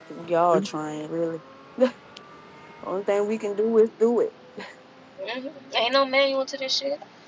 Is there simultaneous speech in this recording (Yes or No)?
No